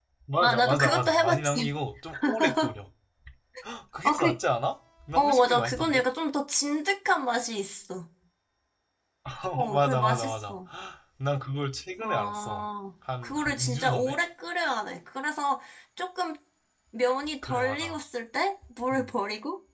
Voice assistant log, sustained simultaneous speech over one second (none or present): present